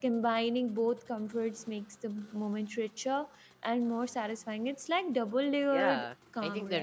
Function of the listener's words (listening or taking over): taking over